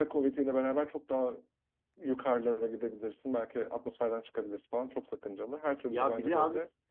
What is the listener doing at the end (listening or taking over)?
taking over